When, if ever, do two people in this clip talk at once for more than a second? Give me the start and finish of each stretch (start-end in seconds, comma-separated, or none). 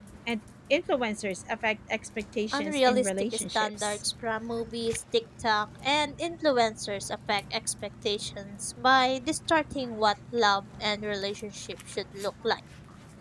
2.5-4.0